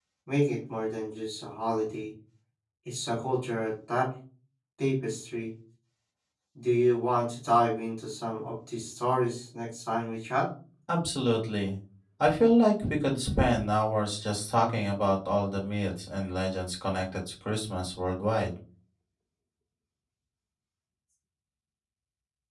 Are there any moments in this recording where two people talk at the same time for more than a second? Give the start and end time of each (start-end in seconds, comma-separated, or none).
none